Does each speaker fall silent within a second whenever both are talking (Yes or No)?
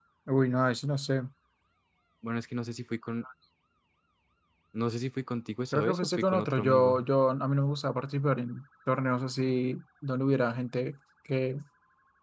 No